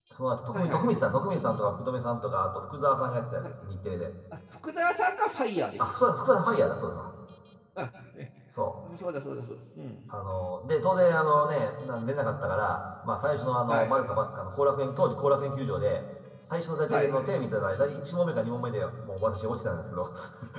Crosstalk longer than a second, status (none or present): none